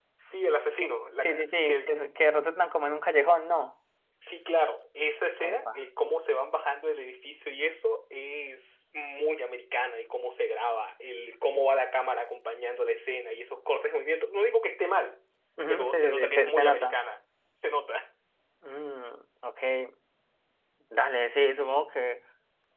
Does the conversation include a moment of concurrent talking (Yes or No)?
Yes